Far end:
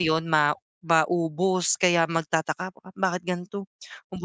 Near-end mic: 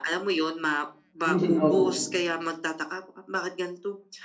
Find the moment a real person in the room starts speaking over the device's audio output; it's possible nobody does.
1 s

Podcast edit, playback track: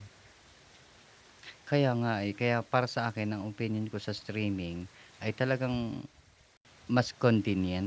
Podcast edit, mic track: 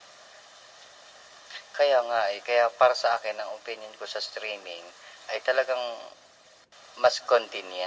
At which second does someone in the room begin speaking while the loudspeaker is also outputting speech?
none

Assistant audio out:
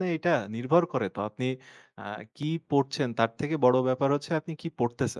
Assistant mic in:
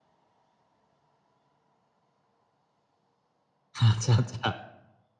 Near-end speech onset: 4 s

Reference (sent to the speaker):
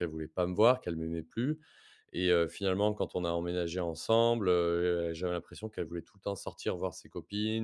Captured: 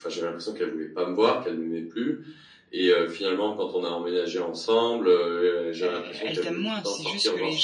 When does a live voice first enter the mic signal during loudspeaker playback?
6 s

